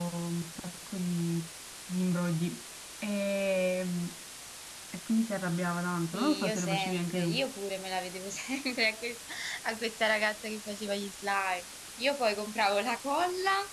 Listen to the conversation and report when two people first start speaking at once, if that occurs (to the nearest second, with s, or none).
6 s